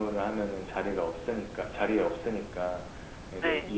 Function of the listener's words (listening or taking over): listening